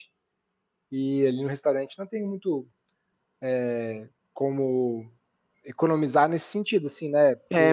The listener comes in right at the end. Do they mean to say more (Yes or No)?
Yes